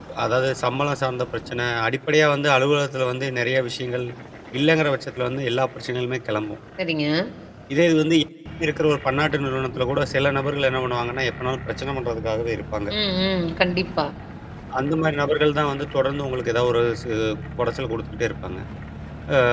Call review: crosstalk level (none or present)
none